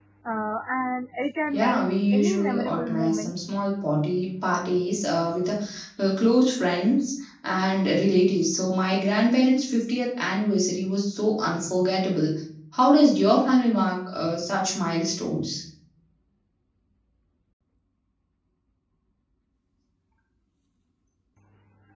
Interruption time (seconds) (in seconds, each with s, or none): 1.5 s